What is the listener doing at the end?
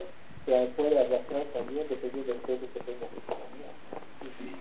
taking over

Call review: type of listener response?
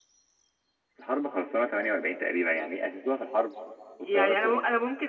taking over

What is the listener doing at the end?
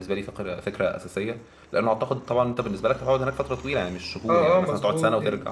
taking over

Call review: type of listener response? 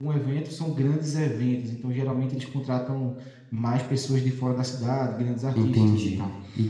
taking over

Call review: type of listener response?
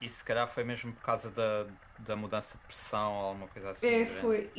taking over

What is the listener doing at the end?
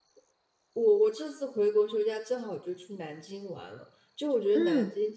listening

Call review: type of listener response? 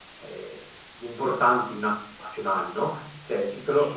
listening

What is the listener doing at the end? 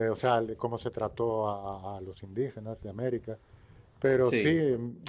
listening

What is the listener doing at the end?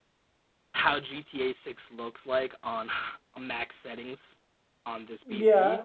listening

